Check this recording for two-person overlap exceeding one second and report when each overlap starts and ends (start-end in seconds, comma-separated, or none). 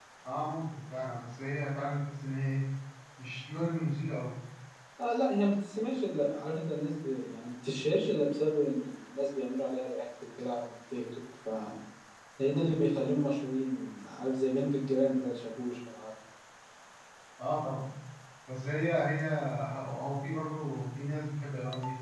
none